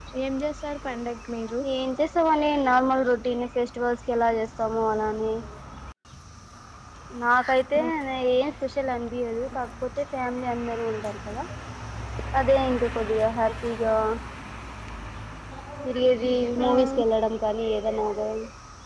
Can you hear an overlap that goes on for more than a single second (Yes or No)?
No